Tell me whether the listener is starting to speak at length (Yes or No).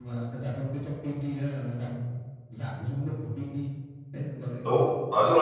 Yes